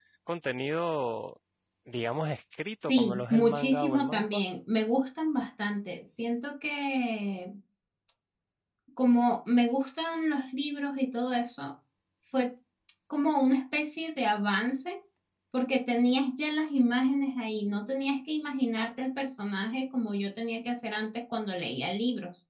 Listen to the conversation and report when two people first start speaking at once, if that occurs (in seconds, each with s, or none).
2.8 s